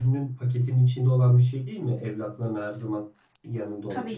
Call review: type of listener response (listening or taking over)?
listening